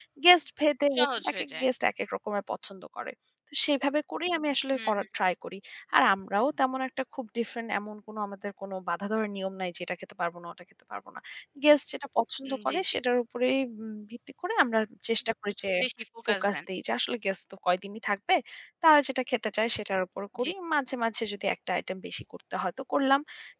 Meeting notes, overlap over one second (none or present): none